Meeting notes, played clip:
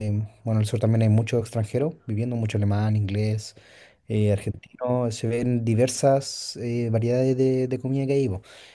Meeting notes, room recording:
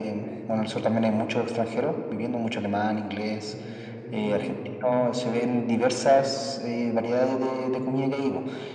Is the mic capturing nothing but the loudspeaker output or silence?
No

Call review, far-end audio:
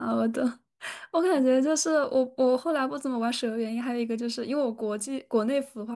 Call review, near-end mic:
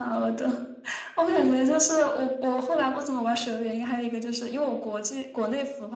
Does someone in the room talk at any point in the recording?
No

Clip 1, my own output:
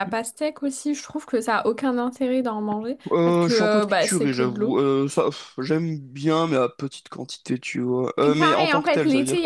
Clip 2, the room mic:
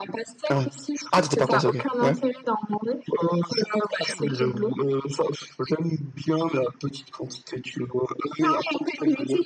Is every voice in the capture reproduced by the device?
No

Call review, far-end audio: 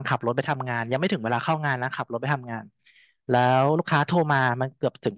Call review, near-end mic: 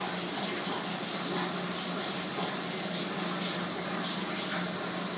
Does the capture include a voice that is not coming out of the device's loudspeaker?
No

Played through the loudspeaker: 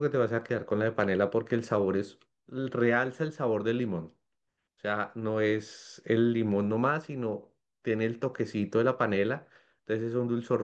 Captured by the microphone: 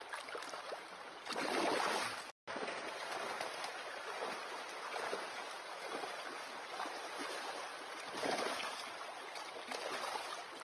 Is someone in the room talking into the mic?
No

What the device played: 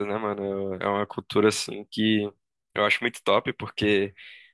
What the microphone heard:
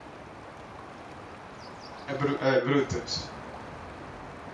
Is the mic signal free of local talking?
No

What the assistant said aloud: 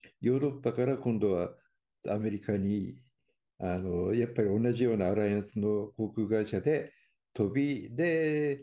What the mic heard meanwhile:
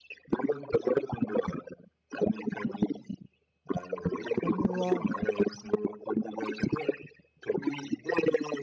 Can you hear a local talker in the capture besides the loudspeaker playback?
Yes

